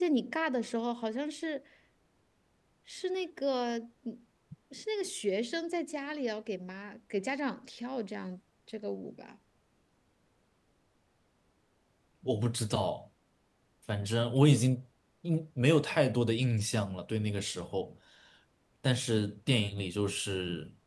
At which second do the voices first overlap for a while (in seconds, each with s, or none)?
none